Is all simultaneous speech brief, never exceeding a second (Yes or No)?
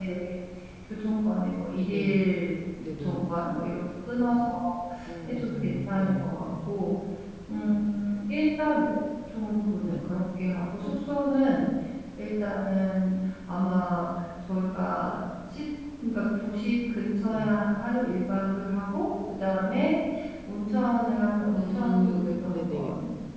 No